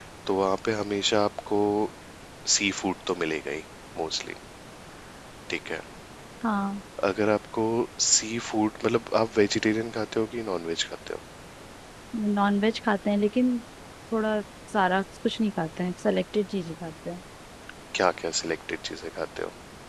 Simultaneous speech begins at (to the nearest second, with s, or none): none